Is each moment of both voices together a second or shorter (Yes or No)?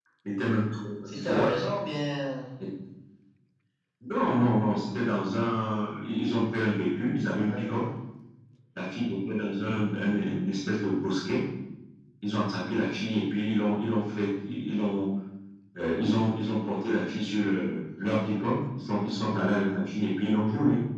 Yes